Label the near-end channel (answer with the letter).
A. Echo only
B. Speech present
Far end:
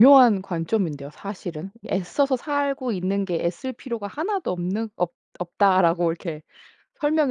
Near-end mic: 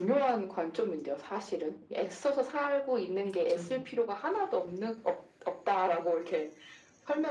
B